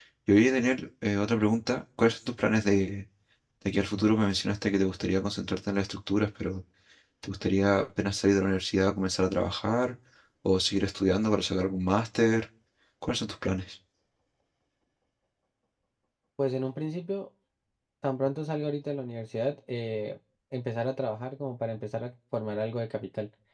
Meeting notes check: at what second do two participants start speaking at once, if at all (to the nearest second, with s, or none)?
none